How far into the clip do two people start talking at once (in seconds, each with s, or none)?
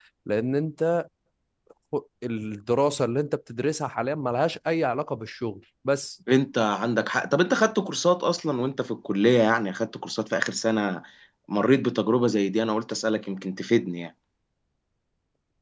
none